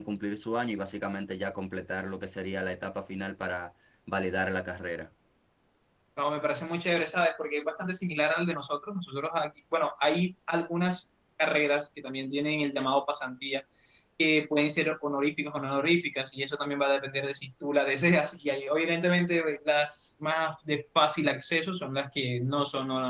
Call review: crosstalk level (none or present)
none